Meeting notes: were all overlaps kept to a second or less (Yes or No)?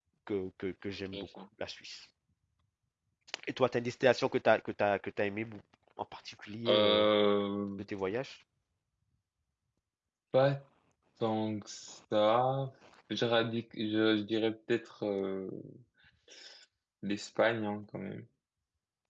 Yes